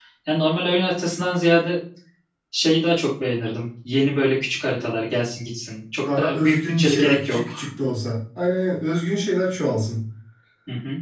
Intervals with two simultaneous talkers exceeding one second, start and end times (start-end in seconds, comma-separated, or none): 6.2-7.6